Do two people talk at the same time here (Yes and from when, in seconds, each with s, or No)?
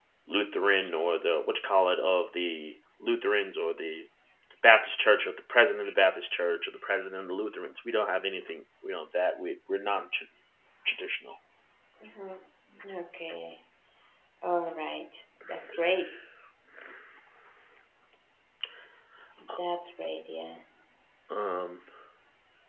No